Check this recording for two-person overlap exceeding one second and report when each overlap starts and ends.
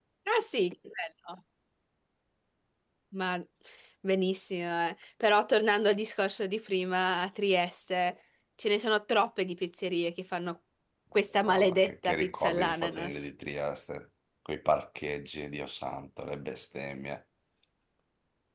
11.5-13.1

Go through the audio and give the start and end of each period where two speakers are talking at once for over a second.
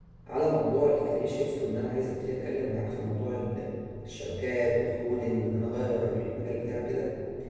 none

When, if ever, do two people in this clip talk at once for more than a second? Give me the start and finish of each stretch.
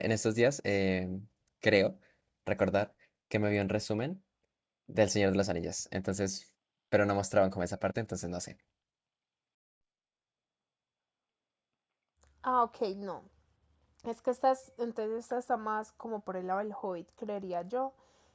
none

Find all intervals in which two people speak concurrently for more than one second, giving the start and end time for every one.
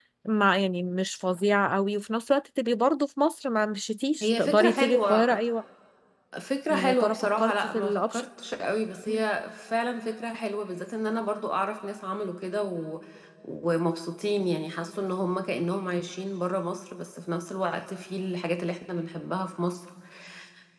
4.2-5.4, 6.7-8.2

